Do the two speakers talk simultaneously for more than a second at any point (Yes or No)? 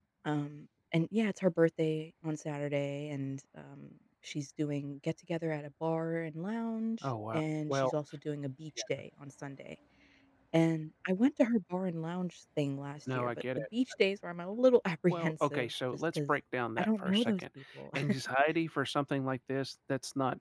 Yes